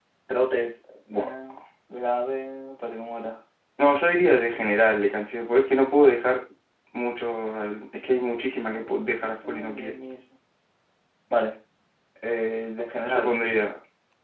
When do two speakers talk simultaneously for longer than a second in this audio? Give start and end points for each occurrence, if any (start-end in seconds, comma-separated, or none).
8.7-9.9